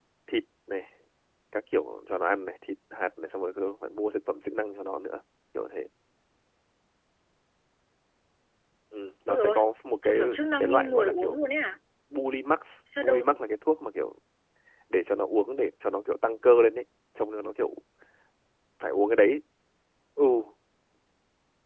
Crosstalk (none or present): present